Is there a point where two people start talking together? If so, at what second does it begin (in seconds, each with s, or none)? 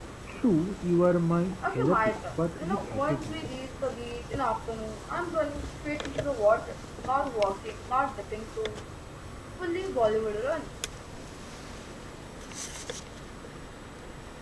1.6 s